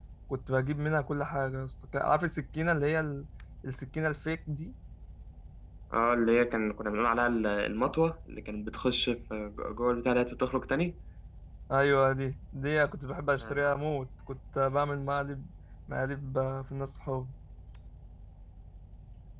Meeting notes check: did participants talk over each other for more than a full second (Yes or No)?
No